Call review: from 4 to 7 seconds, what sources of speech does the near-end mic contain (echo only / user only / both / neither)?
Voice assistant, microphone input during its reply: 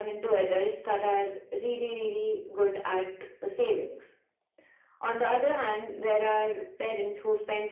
echo only